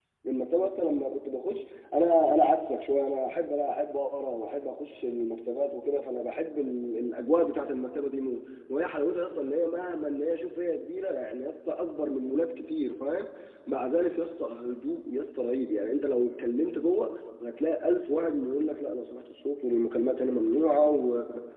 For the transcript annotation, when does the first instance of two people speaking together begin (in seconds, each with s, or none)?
none